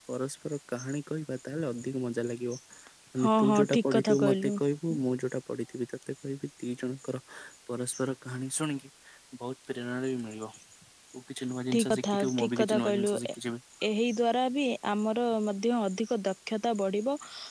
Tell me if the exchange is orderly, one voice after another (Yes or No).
No